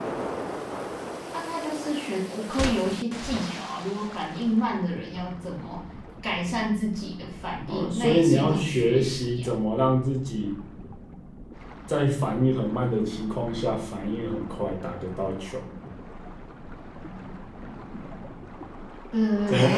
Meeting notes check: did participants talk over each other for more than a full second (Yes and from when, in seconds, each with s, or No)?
Yes, from 7.7 s